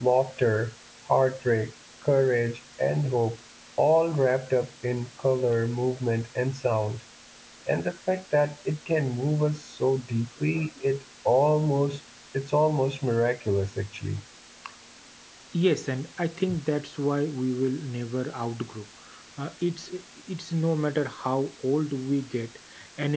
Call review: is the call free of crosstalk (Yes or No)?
Yes